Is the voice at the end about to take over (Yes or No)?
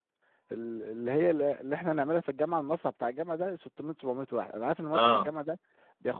No